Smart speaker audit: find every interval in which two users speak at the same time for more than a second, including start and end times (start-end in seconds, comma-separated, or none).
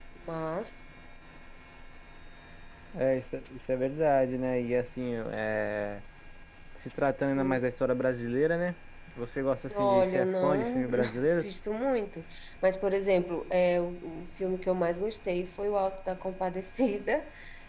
9.7-11.5